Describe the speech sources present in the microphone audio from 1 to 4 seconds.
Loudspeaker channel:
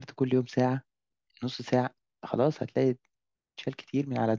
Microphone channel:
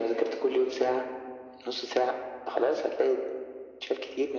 echo only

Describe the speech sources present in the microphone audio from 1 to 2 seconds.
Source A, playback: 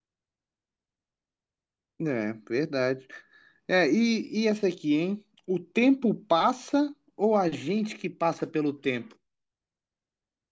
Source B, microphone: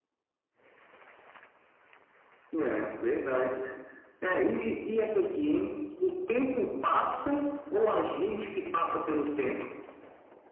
neither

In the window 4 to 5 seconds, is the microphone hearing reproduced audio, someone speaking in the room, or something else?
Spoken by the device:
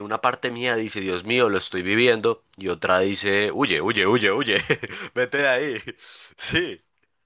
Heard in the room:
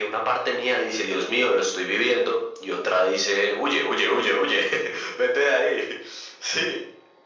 echo only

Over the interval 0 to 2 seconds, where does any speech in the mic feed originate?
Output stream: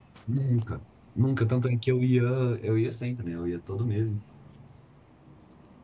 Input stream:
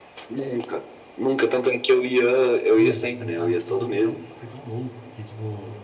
echo only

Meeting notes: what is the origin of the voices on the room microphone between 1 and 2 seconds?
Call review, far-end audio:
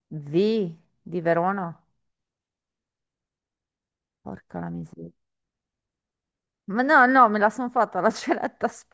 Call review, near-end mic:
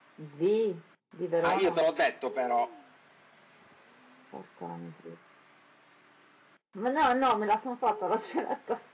both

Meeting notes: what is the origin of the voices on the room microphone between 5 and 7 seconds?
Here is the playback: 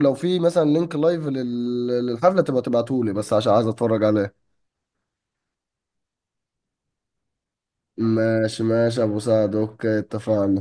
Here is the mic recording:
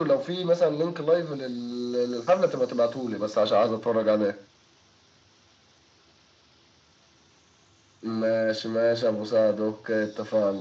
neither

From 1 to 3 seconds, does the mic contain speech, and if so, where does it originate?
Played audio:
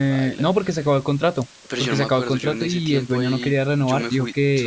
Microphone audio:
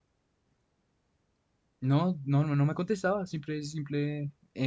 user only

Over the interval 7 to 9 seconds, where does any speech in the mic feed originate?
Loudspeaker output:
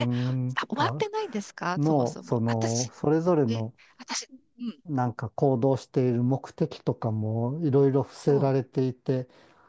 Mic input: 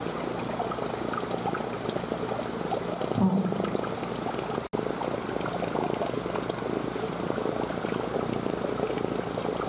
neither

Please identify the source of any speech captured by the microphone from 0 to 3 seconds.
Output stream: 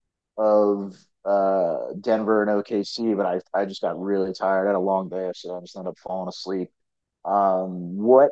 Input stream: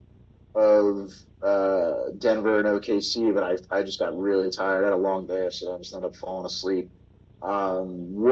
echo only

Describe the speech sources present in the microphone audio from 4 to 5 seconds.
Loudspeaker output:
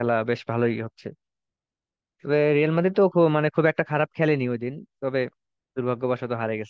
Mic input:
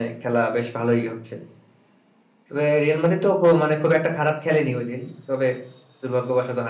echo only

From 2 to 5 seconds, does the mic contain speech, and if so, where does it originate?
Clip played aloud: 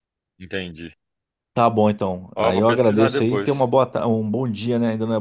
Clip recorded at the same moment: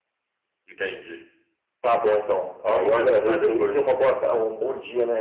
echo only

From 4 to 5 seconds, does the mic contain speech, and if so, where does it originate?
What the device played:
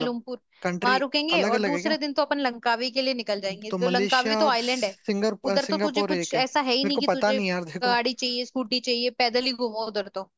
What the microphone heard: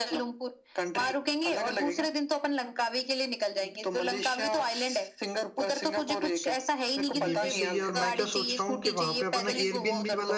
echo only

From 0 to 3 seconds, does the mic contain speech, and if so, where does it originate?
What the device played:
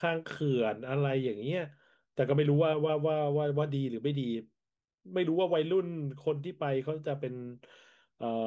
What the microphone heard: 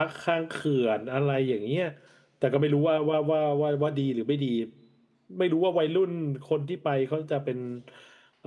echo only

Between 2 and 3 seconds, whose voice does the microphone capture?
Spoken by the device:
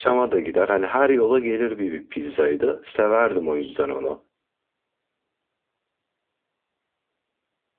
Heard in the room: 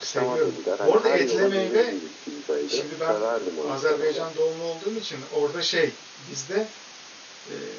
both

